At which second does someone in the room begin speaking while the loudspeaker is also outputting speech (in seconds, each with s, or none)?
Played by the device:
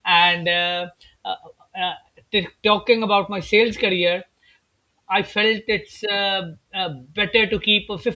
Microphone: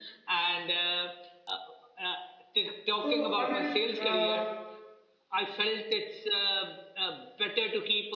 3.0 s